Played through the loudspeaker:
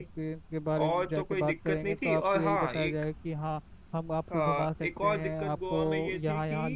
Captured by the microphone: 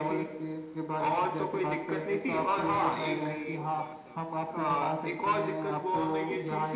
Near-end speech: present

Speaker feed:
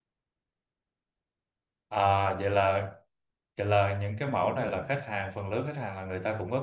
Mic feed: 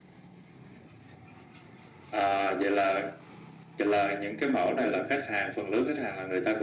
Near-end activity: none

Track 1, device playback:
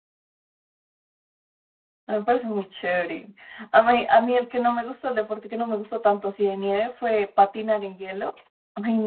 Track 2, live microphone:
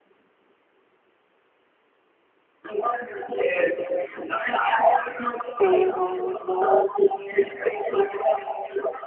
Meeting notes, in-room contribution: present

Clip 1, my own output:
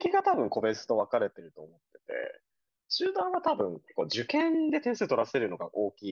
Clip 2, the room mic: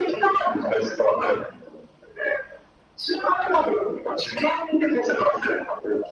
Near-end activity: none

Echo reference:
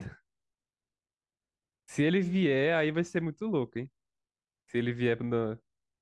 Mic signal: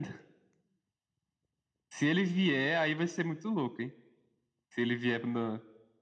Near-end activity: none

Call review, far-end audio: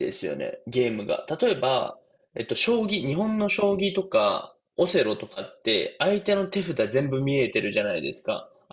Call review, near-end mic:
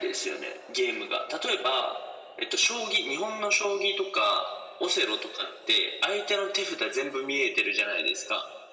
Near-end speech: none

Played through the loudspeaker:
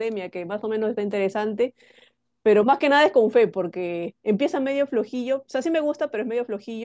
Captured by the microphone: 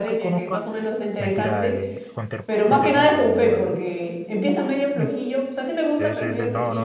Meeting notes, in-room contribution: present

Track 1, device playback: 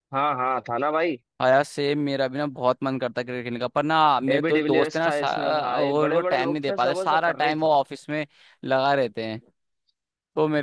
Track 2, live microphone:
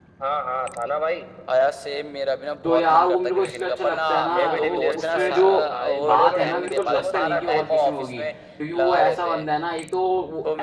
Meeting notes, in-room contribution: present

